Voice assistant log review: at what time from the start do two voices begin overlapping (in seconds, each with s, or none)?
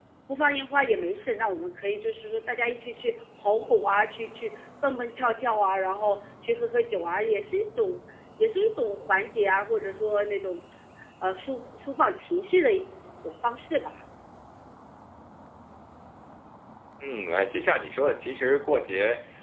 none